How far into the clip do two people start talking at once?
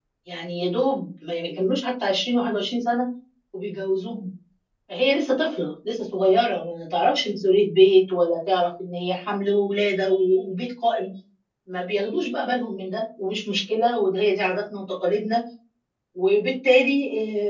none

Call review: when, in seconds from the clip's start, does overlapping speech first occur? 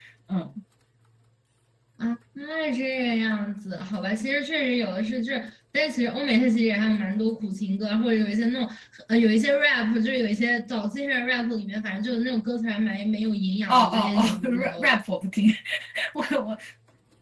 13.7 s

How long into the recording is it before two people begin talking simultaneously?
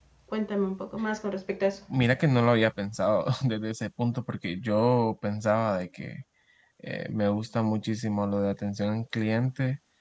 none

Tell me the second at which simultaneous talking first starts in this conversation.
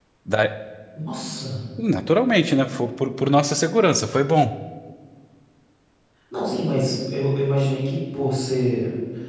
none

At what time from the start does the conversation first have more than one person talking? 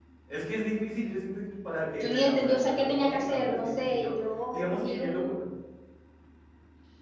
2.0 s

